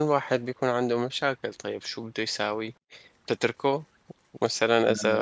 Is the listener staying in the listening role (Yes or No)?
Yes